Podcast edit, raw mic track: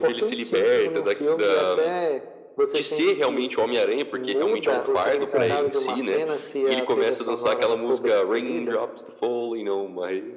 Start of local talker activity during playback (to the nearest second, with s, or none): 5 s